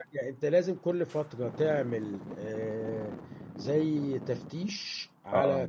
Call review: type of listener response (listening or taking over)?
listening